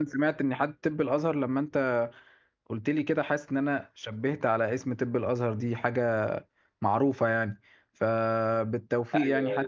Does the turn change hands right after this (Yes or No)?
No